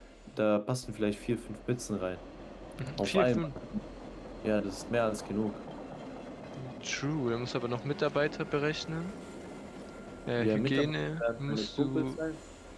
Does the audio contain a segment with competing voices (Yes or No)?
Yes